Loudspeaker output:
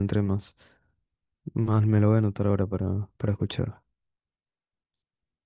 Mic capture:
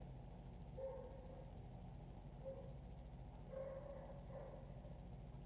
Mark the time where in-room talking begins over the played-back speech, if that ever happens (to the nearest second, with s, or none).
none